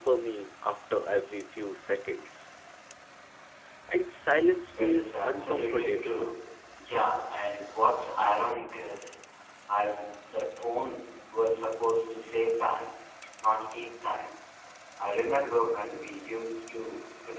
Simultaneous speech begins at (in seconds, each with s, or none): 4.7 s